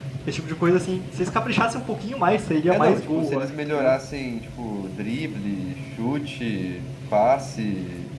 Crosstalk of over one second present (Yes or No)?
Yes